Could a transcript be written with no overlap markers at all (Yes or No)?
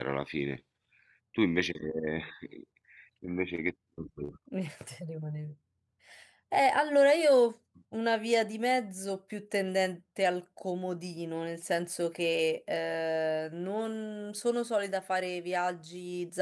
Yes